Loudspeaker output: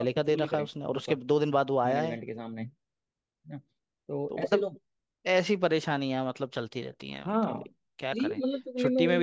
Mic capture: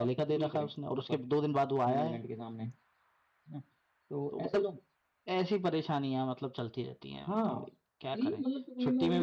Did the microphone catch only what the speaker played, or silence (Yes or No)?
Yes